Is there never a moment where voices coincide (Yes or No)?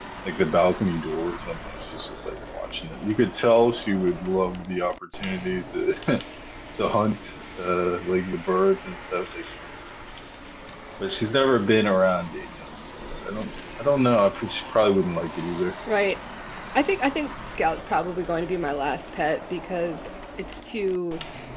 Yes